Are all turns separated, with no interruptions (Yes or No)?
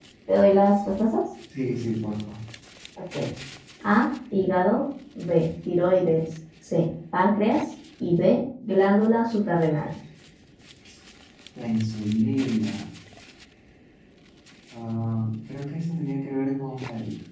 Yes